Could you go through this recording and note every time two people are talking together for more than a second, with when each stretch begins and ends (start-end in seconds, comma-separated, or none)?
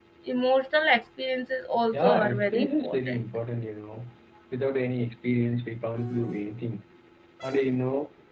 1.9-3.2